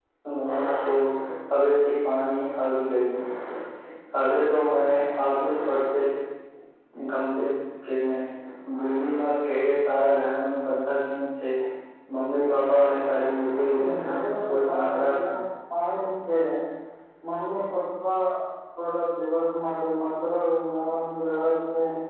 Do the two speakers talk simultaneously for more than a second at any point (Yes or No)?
Yes